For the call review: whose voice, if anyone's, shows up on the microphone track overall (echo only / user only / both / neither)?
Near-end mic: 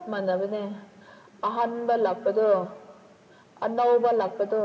echo only